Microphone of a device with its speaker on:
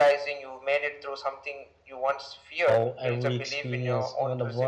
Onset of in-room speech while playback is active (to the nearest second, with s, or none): 3 s